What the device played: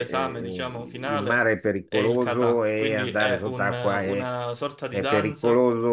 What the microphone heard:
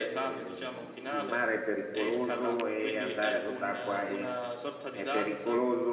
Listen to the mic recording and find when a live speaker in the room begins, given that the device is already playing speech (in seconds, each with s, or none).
none